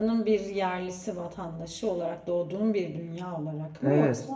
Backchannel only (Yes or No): No